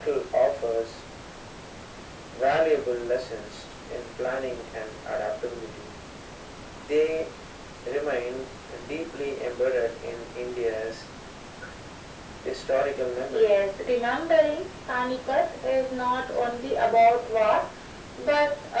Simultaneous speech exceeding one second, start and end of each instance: none

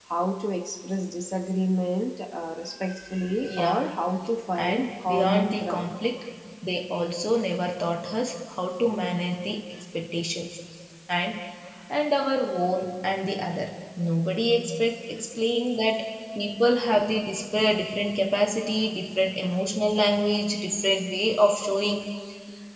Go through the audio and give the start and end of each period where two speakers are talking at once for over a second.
4.6-6.0

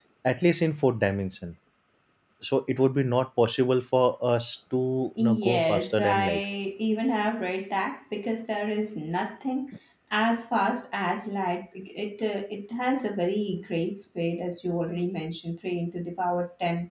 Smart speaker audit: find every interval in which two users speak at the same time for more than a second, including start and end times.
5.2-6.4

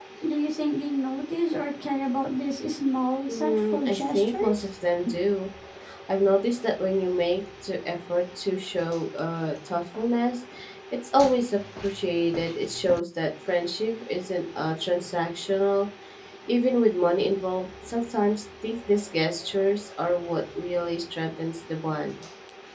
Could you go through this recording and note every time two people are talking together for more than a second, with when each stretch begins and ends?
3.3-4.6

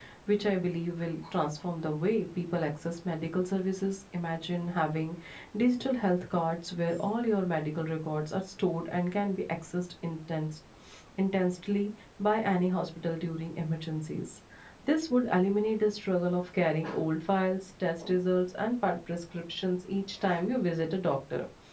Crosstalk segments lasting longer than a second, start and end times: none

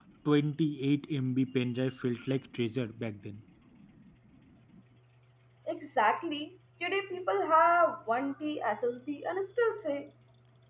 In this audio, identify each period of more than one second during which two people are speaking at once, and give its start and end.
none

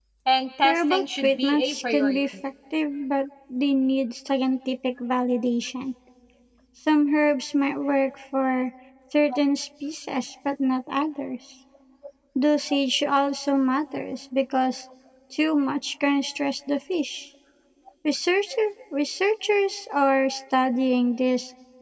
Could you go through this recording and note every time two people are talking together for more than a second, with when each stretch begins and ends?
0.6-2.2

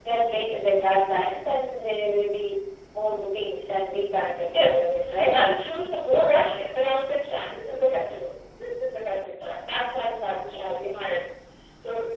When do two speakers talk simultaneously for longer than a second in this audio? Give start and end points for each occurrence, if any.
none

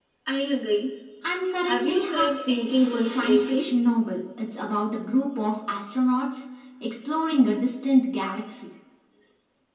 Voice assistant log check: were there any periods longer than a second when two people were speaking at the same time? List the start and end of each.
1.6-3.7

